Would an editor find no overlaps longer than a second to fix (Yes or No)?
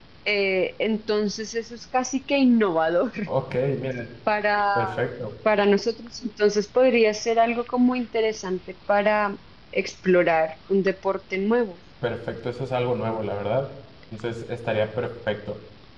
Yes